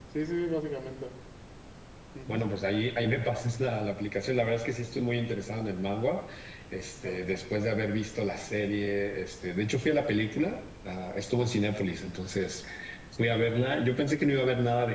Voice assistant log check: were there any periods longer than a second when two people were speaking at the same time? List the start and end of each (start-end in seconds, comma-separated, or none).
none